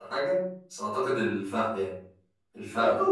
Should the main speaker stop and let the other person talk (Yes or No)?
No